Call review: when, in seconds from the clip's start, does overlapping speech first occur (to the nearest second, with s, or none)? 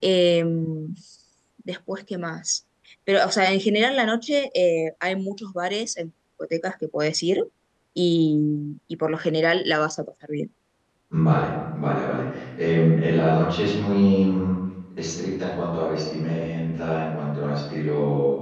none